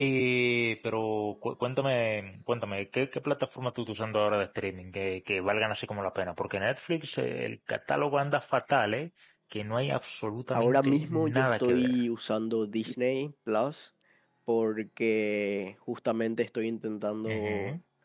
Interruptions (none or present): present